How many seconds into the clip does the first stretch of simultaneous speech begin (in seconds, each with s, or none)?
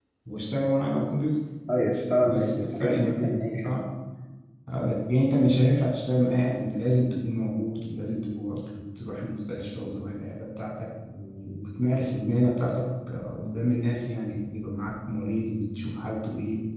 2.2 s